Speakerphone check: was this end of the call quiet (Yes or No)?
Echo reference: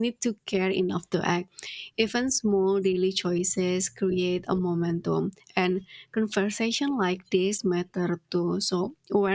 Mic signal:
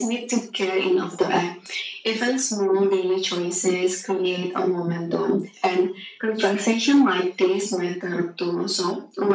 Yes